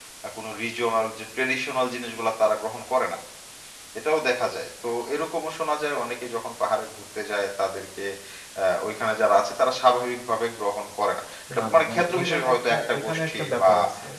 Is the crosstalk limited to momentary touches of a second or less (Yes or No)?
No